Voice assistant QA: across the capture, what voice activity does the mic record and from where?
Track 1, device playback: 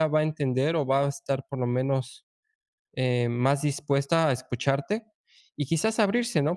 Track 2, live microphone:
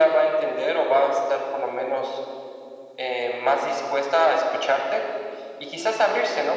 echo only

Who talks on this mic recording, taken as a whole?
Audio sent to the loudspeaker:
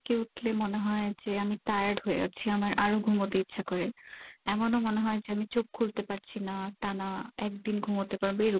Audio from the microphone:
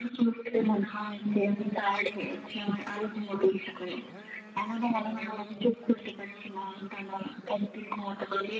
echo only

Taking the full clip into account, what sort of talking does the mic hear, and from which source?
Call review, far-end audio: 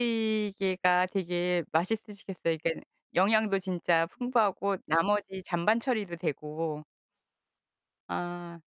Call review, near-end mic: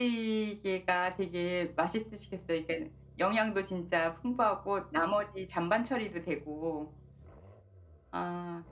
echo only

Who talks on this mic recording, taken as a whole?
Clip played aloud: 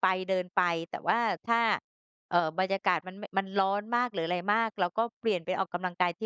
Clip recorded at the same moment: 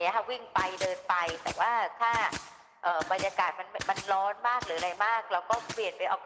echo only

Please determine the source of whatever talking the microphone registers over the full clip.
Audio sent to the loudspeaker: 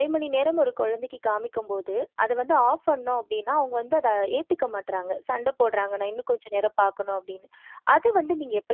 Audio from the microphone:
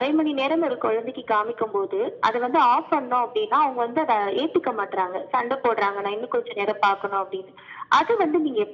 echo only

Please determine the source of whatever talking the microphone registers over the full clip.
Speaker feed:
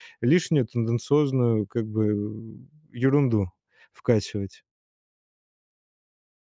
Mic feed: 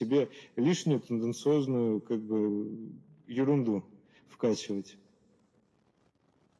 echo only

